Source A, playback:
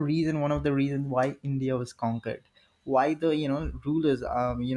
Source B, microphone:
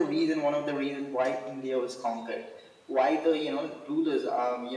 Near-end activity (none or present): none